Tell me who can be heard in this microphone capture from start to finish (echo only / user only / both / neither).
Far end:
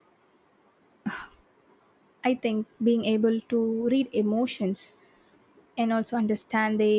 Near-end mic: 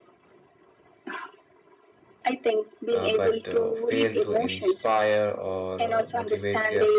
both